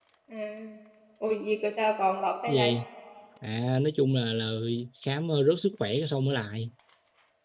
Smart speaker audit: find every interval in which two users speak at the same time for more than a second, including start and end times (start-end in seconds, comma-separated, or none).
none